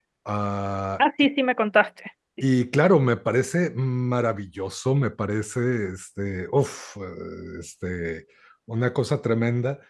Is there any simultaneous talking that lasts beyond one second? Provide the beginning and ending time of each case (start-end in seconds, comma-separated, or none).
none